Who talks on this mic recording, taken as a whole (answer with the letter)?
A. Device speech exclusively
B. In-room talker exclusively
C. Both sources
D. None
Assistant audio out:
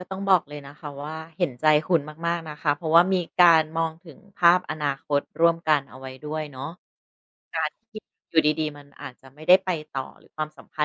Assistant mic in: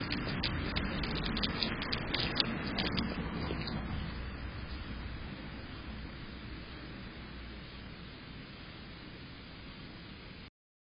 D